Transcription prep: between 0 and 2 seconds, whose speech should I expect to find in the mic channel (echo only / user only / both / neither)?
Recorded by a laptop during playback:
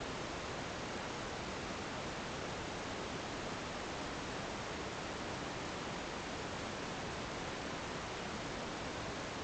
neither